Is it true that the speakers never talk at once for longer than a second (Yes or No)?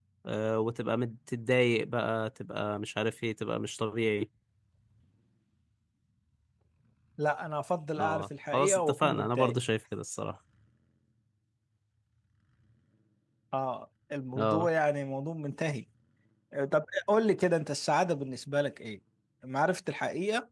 No